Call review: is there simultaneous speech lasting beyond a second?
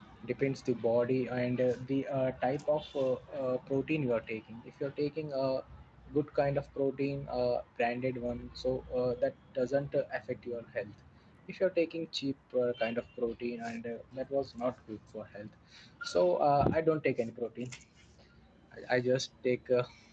No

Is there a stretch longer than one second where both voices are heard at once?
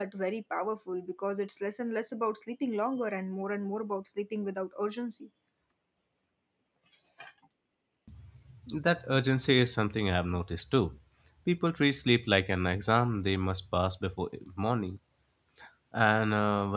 No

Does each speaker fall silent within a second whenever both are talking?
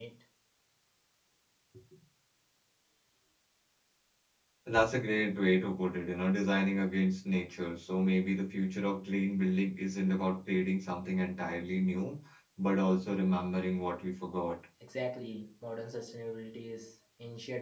Yes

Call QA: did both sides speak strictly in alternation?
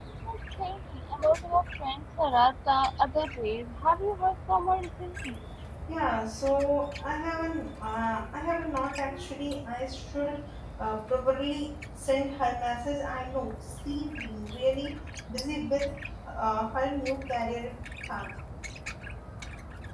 Yes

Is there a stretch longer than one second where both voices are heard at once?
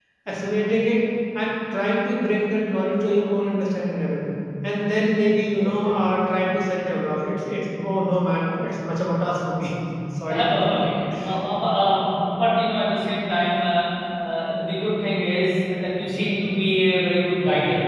No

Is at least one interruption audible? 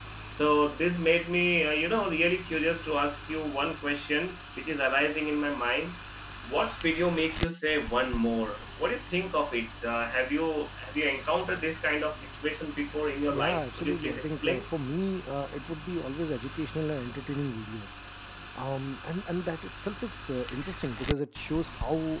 Yes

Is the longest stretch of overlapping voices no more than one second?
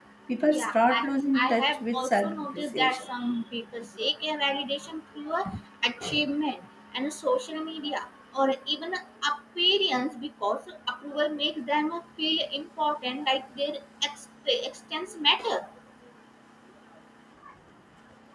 No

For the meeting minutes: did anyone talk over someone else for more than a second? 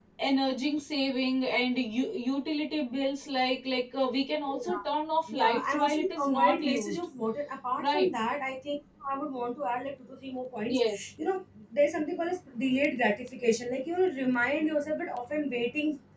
Yes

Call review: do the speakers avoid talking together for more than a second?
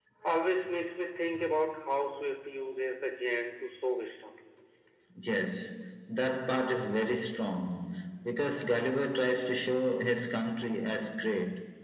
Yes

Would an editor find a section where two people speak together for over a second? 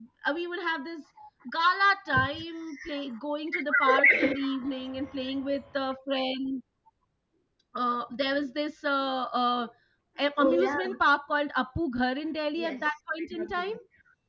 Yes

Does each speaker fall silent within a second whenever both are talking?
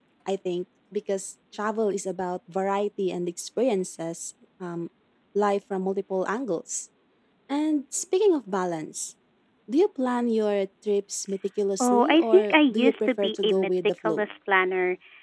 No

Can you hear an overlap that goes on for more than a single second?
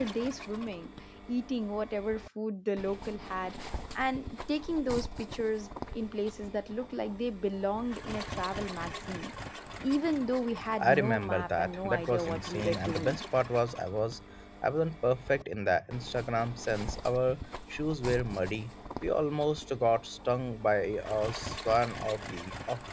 Yes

